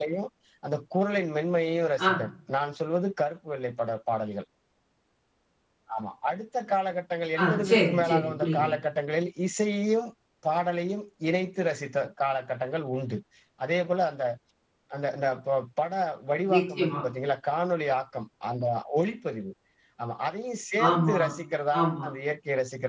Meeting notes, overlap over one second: present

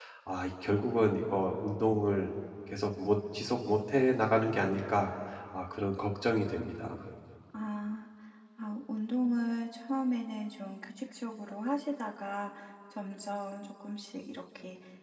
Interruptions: none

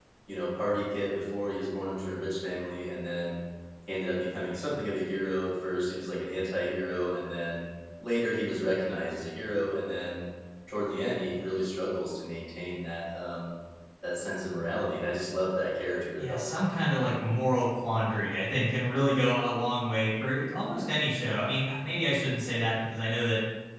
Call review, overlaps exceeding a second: none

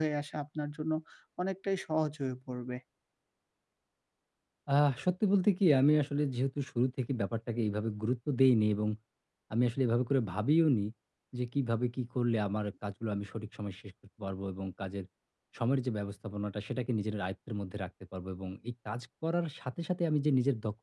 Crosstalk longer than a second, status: none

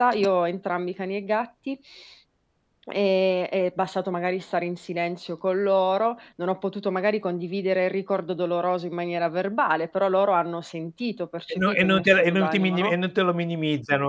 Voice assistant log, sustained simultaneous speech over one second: present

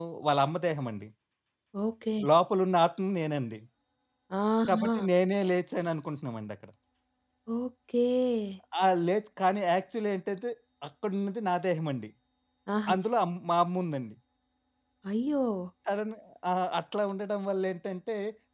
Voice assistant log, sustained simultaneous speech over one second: none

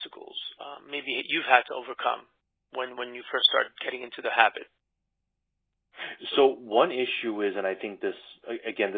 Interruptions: none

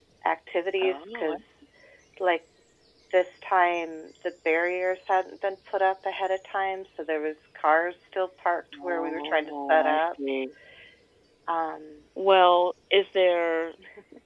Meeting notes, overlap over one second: present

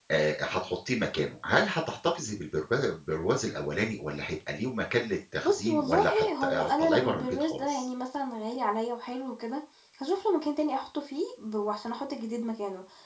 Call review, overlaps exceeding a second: present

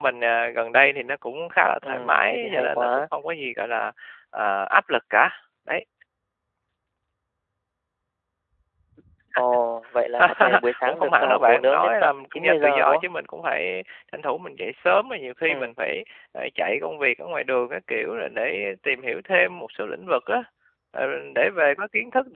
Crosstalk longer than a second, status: present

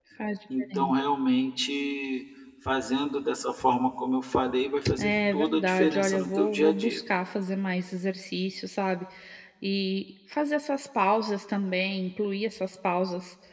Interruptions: present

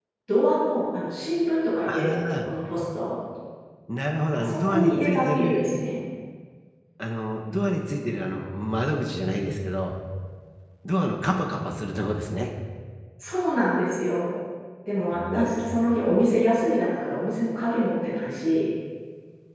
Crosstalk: present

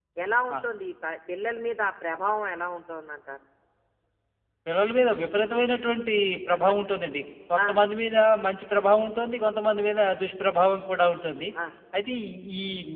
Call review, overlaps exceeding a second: none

